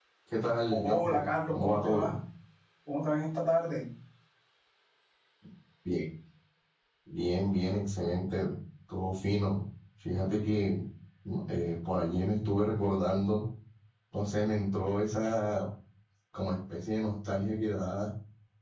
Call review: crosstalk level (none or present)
present